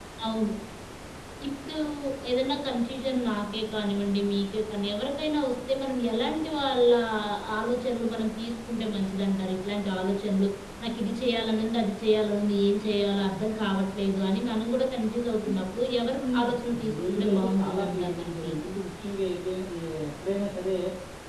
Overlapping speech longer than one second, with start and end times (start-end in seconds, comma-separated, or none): 16.1-18.5